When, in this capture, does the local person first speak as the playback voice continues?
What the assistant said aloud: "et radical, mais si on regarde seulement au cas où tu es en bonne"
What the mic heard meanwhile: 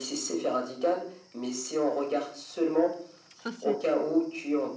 3.3 s

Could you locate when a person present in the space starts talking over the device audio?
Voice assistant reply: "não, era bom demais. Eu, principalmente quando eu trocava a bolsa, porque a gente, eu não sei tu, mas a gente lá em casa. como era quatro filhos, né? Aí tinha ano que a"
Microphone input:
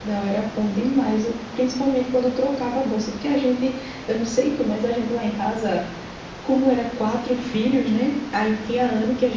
none

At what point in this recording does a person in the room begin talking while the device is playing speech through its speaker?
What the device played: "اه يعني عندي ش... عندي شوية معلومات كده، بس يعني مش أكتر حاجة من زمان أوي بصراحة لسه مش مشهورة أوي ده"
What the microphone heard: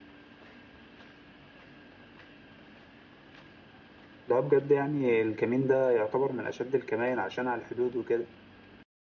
4.3 s

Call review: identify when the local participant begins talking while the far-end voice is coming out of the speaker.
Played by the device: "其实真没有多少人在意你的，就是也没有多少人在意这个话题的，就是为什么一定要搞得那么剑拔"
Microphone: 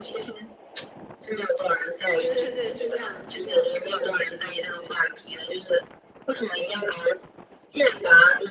2.2 s

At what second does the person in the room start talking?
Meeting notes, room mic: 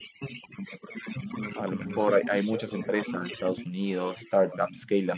1.5 s

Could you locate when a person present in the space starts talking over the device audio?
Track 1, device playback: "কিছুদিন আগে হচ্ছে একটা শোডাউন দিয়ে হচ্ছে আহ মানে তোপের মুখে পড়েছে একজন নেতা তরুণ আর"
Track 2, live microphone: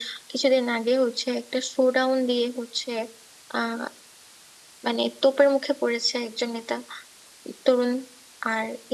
none

